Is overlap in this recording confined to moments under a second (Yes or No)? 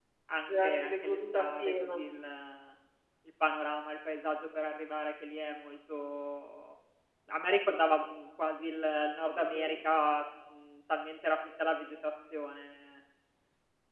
No